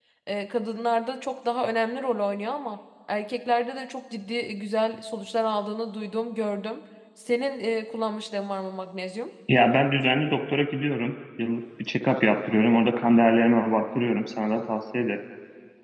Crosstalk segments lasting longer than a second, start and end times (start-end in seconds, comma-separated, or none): none